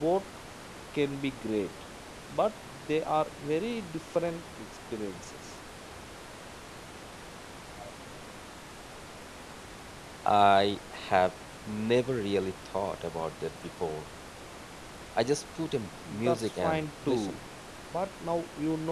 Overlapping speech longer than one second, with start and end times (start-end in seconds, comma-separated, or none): 16.1-17.4